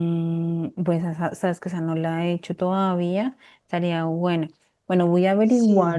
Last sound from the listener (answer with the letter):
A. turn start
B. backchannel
B